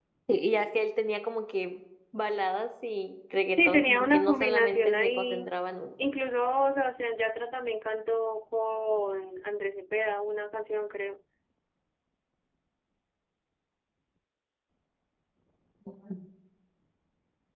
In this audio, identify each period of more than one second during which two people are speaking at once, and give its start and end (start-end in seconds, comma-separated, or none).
3.6-5.5